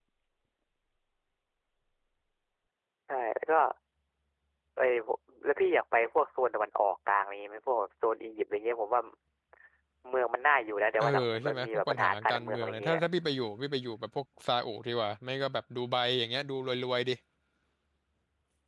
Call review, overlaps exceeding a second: present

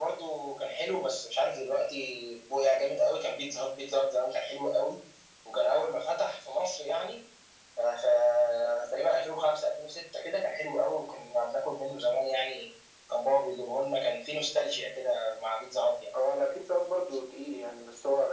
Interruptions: none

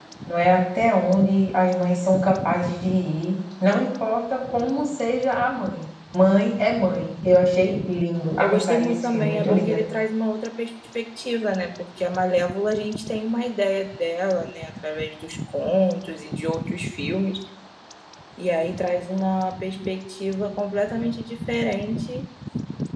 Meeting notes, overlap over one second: present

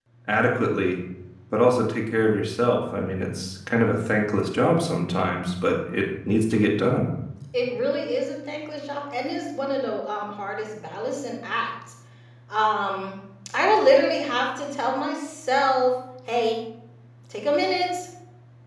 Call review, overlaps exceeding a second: none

